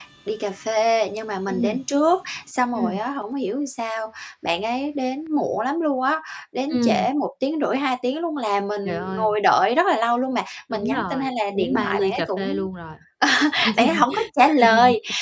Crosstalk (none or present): present